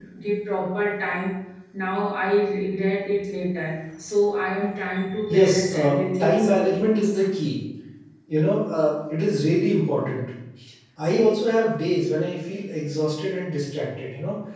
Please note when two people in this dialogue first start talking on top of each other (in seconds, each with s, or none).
5.3 s